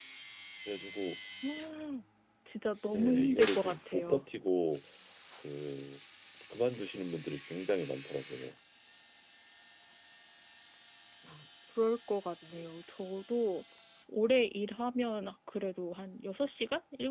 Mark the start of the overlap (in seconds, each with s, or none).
3.0 s